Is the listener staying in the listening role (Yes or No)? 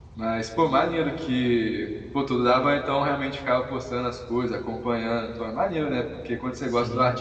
Yes